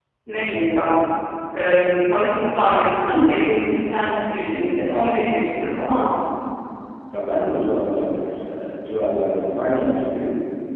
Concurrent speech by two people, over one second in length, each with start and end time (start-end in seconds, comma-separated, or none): none